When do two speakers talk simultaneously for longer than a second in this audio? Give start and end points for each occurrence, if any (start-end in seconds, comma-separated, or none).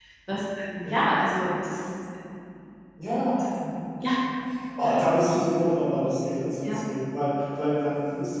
none